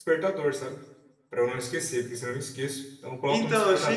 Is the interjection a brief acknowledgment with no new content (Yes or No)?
No